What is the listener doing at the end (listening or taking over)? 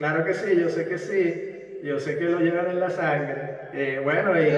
taking over